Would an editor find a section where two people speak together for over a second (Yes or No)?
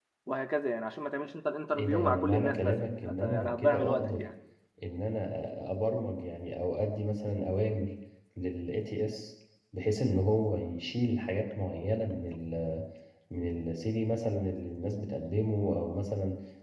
Yes